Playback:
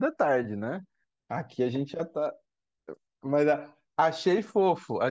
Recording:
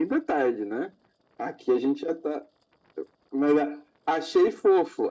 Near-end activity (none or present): none